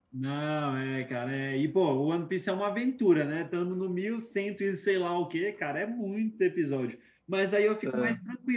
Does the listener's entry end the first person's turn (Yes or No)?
No